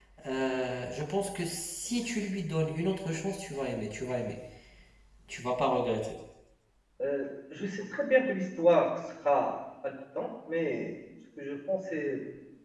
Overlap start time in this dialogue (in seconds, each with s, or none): none